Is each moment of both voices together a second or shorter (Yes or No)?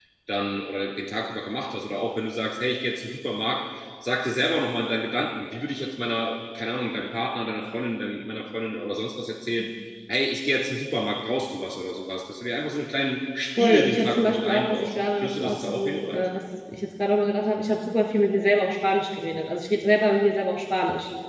No